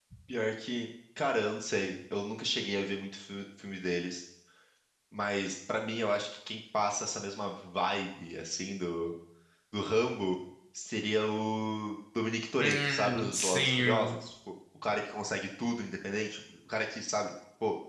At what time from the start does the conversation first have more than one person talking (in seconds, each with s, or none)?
12.6 s